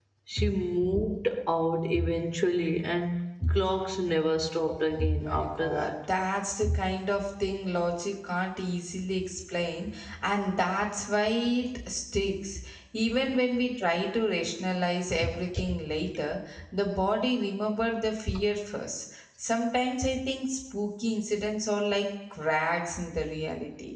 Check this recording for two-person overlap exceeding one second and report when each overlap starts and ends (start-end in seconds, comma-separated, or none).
4.7-5.9